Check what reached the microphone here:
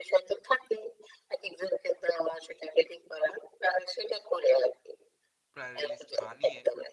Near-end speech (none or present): present